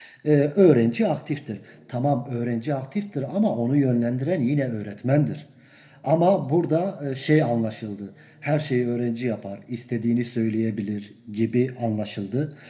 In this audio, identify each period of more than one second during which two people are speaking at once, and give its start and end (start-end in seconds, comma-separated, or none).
none